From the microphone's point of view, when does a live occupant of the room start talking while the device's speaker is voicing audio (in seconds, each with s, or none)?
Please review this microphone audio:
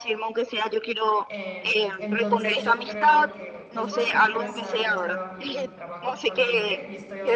1.2 s